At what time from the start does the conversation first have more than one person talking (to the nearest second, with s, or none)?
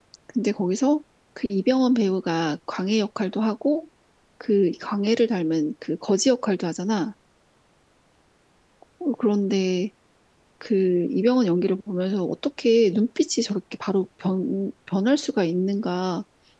none